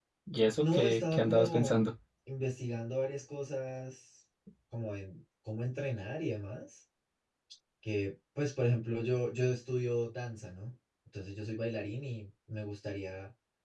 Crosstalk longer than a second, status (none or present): present